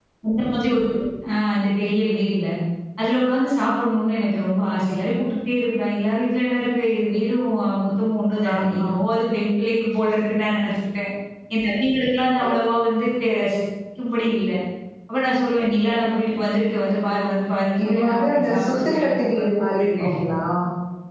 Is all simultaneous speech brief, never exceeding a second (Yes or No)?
No